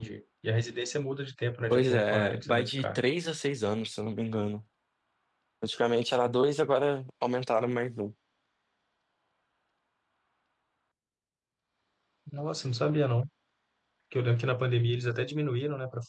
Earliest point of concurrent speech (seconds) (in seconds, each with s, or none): 1.7 s